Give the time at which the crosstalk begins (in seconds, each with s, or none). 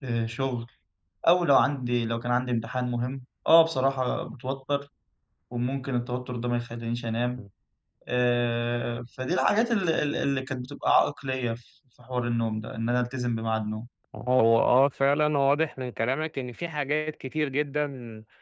none